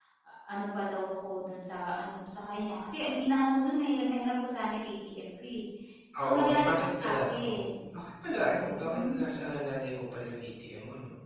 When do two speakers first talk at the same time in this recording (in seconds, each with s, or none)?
6.2 s